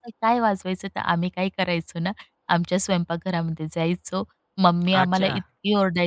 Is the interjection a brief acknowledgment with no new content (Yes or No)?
Yes